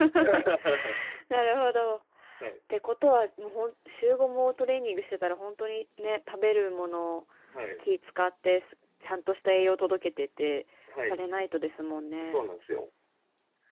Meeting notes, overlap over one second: none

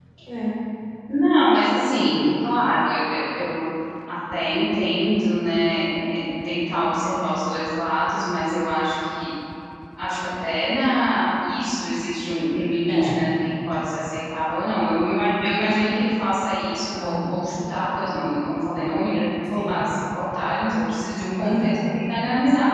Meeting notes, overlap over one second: none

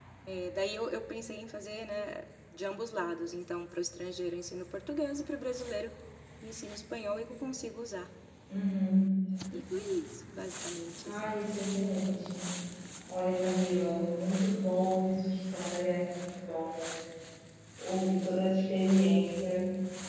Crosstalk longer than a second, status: none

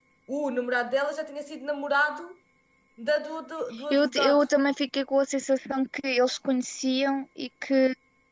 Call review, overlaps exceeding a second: none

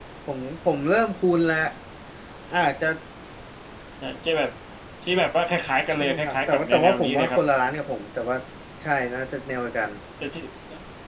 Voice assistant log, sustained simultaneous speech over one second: present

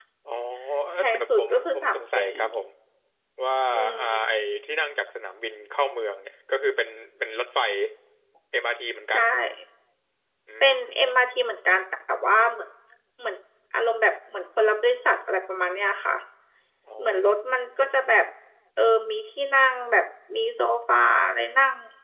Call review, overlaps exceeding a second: present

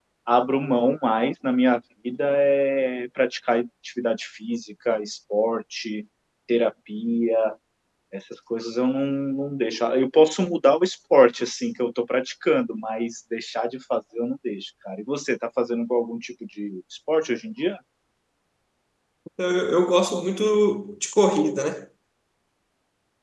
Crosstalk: none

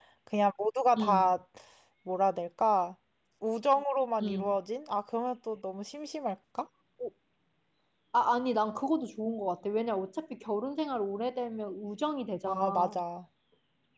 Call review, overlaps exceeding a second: none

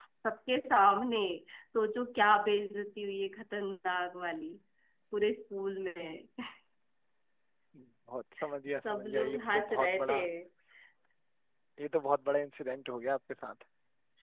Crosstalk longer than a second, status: present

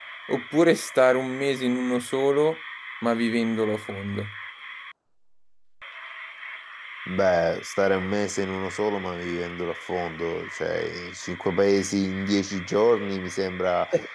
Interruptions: none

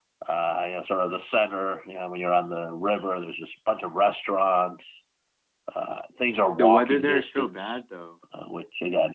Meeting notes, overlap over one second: present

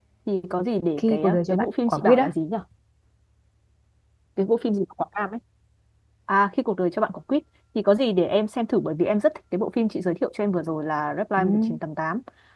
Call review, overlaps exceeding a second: present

